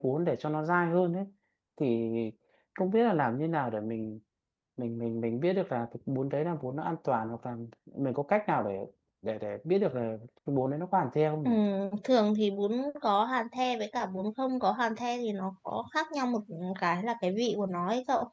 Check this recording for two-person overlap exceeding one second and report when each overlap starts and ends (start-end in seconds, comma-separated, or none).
none